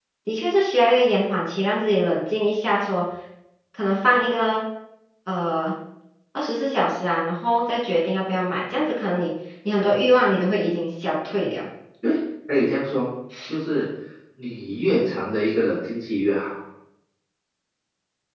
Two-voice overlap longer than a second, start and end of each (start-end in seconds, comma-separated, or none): none